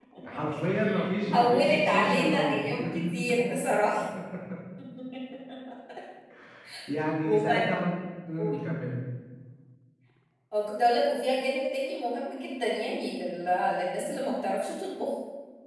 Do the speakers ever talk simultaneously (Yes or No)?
Yes